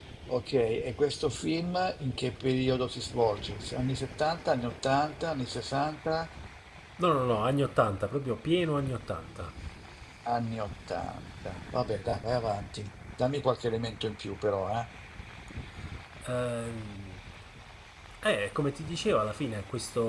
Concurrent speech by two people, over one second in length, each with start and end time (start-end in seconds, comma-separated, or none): none